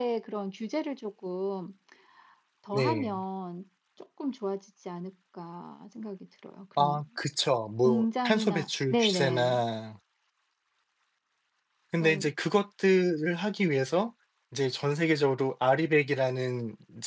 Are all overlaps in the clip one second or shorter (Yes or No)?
No